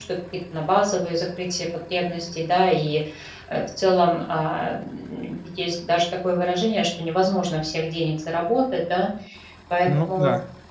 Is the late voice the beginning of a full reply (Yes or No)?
No